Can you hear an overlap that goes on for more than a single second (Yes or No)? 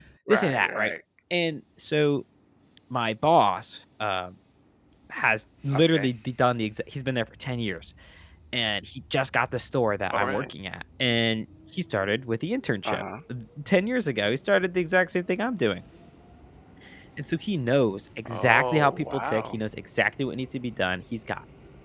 Yes